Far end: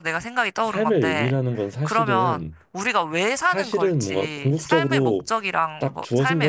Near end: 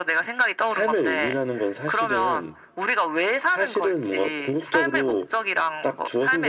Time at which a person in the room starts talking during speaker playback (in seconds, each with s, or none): none